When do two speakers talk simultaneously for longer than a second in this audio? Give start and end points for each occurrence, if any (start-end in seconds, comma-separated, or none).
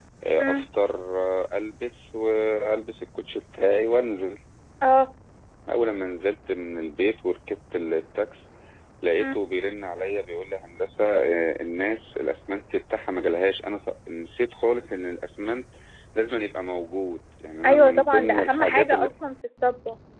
17.6-18.9